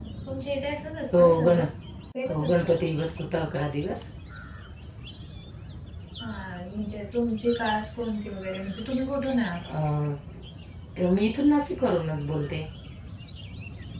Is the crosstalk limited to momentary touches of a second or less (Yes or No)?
Yes